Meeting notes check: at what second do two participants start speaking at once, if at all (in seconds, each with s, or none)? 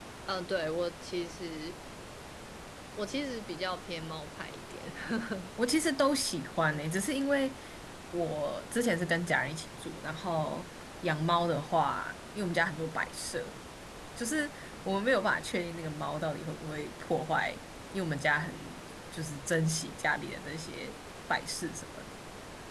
none